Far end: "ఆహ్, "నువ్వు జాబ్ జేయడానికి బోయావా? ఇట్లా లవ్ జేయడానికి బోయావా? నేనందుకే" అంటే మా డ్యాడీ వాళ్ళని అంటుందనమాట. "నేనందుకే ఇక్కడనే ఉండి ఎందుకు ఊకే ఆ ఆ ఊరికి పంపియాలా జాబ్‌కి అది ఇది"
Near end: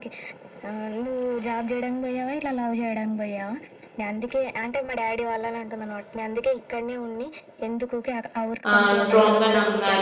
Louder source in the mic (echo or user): user